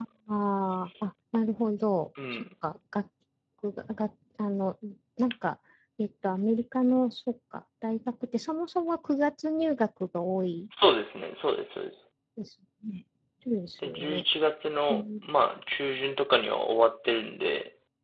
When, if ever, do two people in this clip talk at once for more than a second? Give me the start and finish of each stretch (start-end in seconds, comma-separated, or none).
none